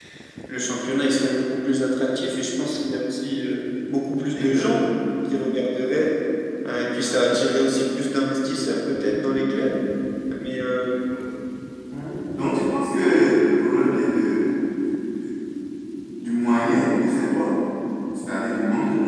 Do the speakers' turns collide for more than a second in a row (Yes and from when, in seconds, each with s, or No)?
No